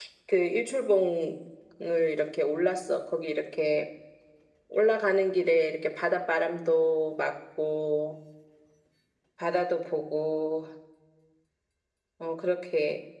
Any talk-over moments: No

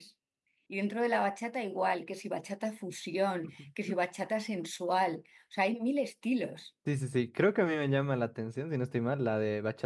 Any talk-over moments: No

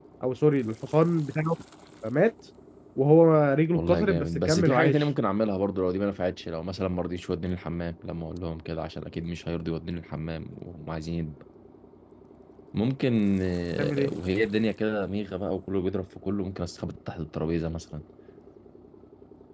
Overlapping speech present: Yes, from 3.7 s

